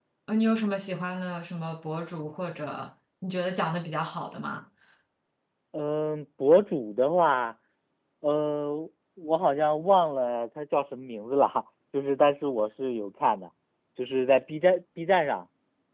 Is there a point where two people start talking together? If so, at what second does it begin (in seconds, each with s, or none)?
none